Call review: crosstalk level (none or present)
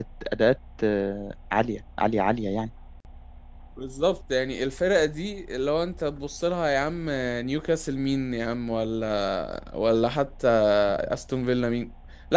none